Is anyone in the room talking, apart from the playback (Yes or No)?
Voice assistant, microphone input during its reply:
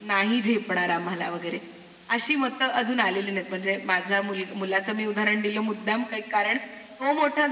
No